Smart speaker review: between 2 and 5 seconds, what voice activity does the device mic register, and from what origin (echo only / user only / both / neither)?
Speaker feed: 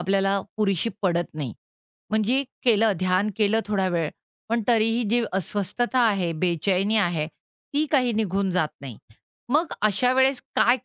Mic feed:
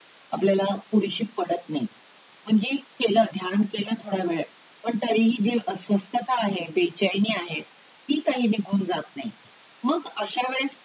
echo only